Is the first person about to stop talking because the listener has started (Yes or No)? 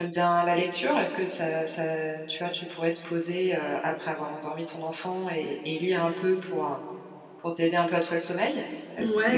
Yes